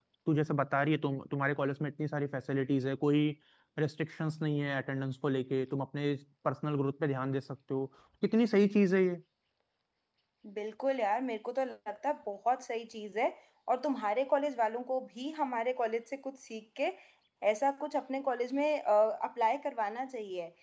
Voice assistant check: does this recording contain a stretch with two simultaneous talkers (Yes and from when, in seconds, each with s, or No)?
No